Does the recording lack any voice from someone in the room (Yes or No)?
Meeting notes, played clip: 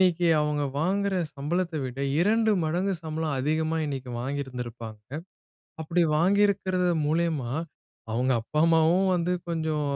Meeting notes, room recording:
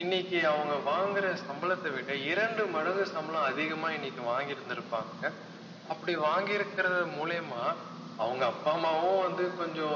Yes